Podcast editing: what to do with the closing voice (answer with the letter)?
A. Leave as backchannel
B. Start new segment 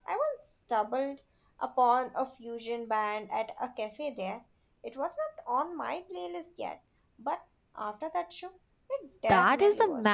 B